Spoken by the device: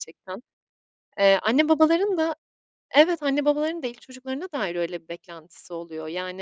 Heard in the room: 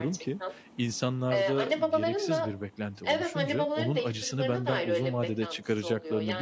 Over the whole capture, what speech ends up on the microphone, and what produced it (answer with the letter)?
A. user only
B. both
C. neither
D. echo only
B